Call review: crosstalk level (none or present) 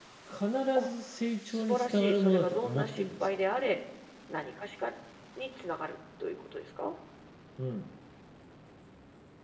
present